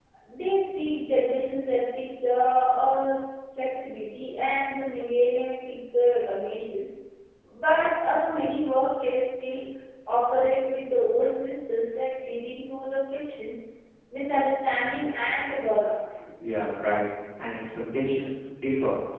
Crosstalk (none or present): none